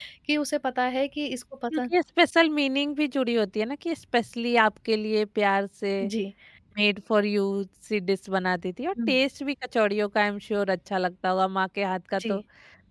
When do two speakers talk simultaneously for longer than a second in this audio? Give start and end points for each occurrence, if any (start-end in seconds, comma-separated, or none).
none